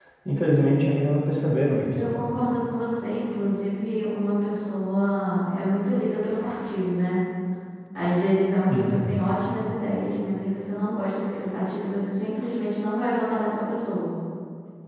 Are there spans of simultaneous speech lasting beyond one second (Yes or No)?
No